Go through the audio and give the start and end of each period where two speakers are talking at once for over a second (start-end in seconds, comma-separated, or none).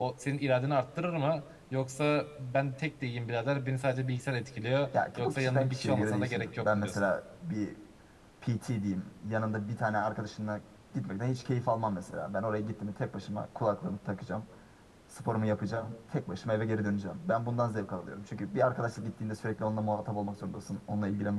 4.9-7.1